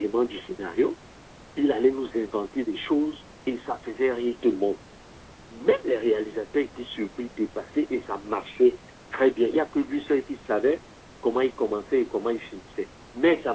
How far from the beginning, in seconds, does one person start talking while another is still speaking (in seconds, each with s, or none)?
none